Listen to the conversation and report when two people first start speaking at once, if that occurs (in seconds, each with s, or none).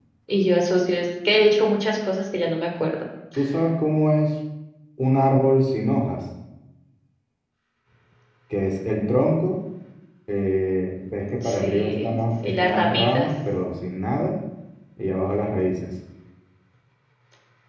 11.4 s